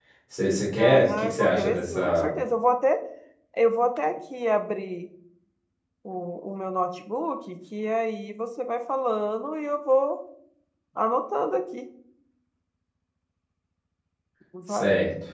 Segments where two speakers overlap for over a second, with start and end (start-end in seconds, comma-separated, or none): 0.8-2.3